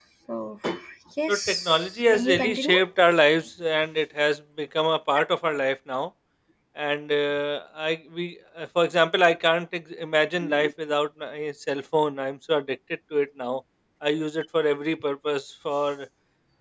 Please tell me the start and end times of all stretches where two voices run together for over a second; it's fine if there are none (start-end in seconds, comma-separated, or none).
1.3-2.8